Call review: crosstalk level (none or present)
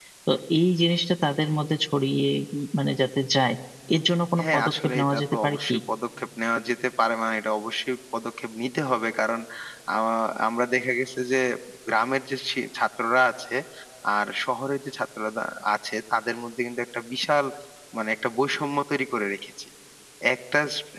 present